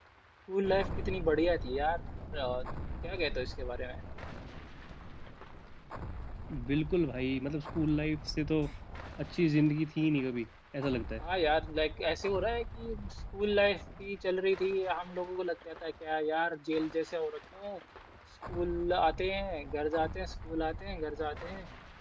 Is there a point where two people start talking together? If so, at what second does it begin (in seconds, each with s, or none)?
none